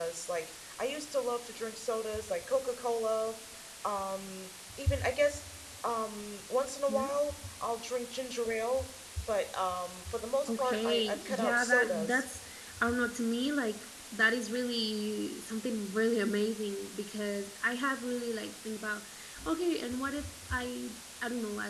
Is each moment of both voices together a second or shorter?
No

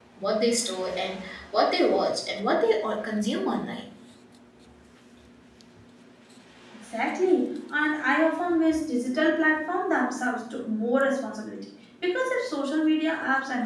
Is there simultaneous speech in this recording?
No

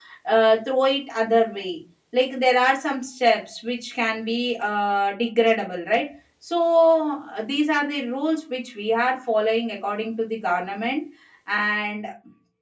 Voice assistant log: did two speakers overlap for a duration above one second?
No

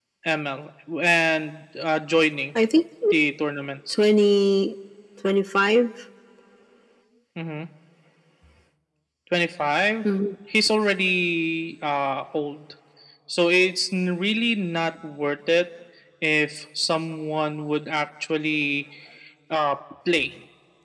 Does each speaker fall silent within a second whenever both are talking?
Yes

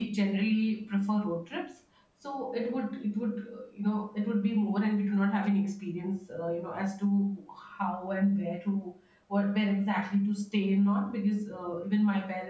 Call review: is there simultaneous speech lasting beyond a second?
No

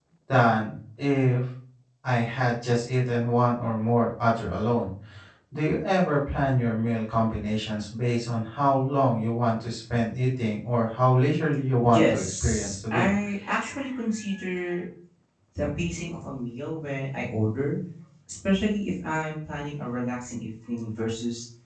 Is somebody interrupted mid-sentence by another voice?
Yes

